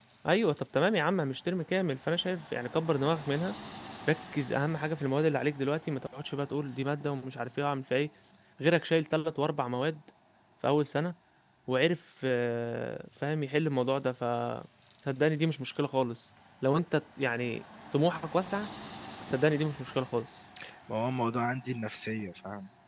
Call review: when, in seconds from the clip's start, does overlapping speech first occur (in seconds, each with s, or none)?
none